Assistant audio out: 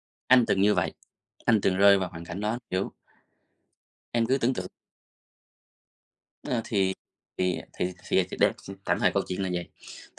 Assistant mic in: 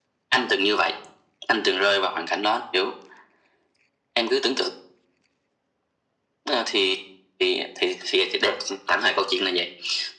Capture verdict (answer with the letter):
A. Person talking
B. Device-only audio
B